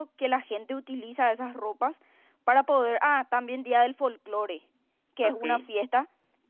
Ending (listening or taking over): listening